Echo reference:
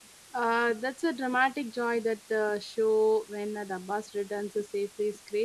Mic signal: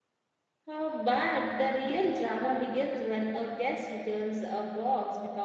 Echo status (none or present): none